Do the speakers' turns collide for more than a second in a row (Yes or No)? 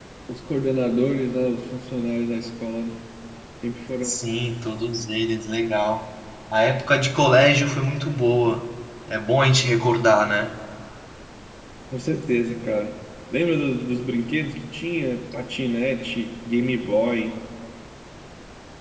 No